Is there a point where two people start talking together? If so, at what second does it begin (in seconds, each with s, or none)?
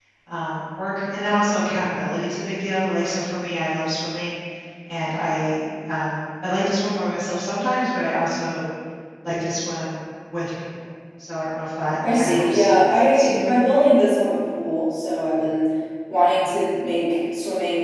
12.0 s